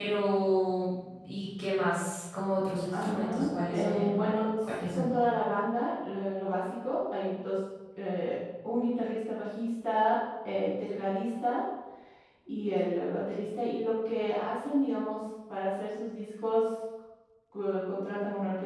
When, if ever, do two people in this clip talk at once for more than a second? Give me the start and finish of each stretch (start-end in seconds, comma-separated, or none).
2.9-4.2